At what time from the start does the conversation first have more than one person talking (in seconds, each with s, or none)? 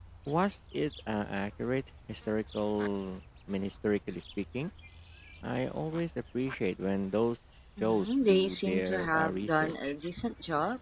7.8 s